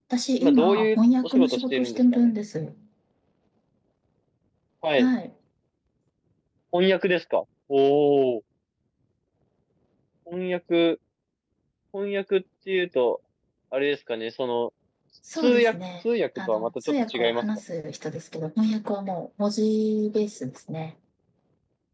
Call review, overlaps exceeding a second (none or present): present